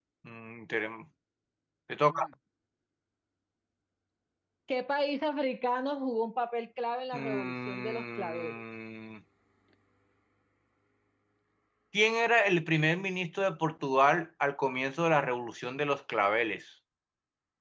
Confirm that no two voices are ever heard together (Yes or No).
No